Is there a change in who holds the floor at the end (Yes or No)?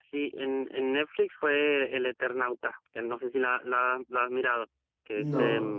Yes